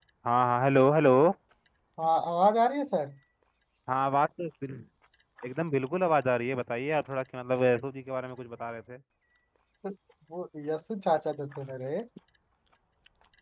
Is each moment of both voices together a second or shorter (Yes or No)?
Yes